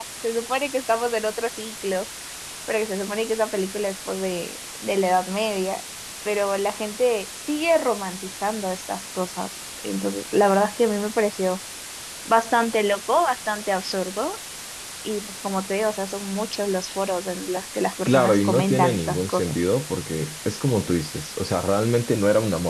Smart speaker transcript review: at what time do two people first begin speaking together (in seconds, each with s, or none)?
18.1 s